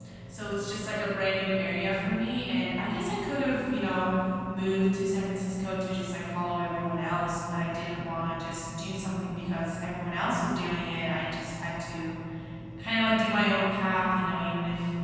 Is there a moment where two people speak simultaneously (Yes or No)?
No